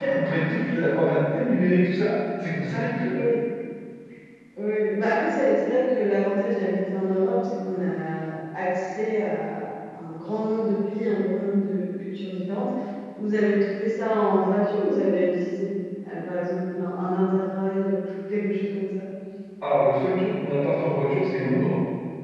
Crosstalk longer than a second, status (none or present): none